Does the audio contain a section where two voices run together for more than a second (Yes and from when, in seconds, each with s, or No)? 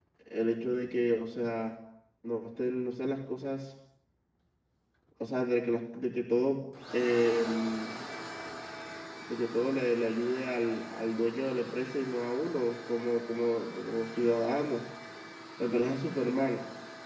No